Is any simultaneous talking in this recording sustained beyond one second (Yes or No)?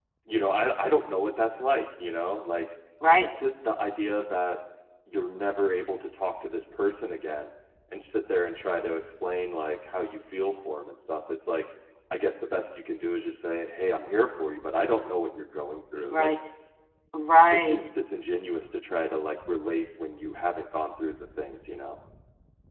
No